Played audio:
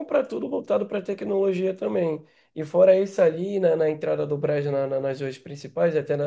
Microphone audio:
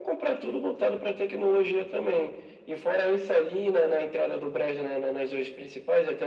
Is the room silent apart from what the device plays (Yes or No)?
Yes